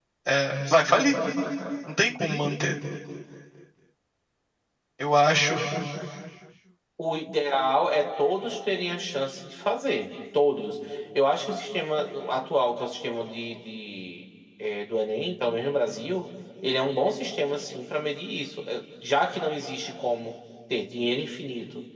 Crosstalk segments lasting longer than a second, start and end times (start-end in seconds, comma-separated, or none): none